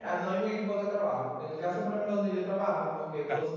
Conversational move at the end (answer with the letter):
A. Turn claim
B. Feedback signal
B